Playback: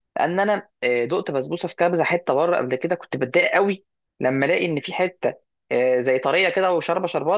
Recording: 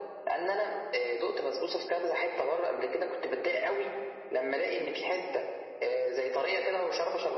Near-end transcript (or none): none